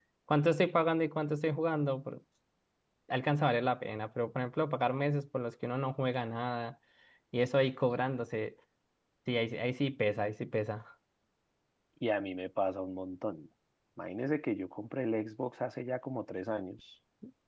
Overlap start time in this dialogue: none

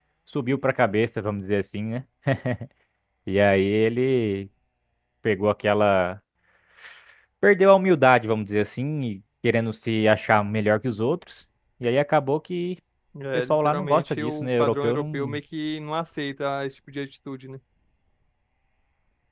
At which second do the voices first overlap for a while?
13 s

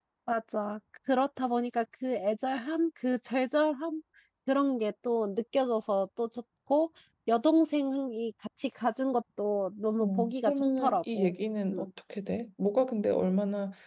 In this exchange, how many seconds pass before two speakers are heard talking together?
10 s

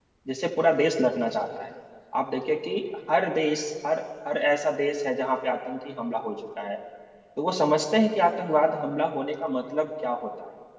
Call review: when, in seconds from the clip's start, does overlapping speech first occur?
none

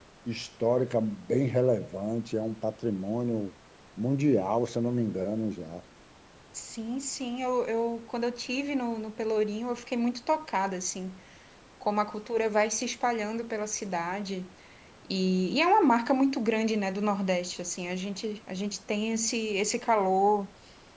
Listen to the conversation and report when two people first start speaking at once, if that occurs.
none

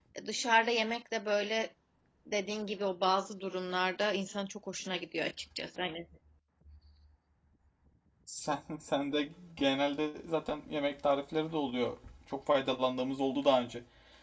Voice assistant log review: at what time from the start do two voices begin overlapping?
none

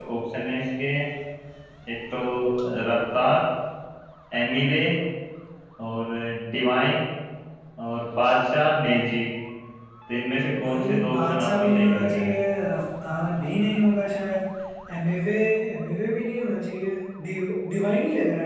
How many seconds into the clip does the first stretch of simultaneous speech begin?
11 s

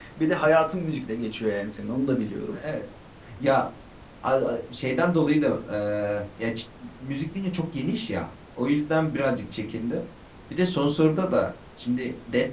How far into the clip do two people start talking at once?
none

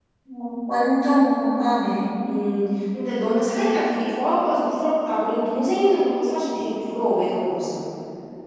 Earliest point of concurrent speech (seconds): none

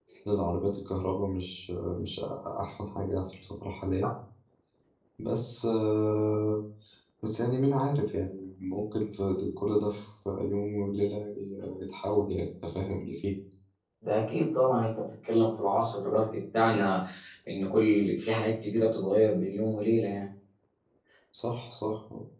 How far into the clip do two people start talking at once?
none

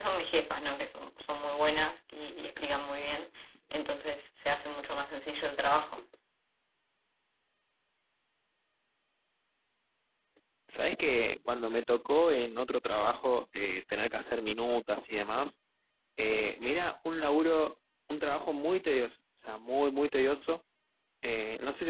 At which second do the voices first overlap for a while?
none

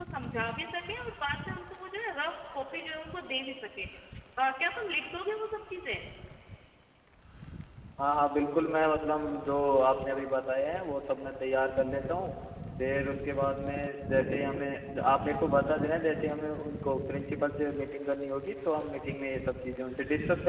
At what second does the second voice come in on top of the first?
none

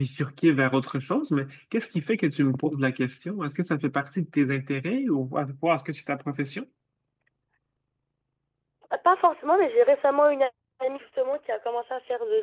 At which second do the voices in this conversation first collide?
none

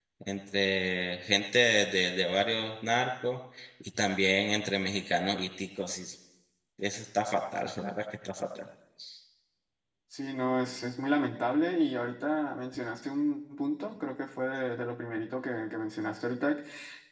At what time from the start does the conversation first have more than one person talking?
none

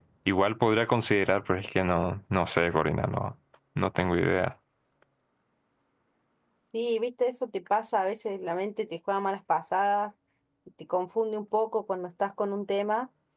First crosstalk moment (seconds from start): none

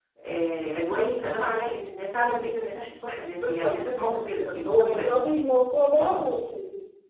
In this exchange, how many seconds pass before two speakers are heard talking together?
3 s

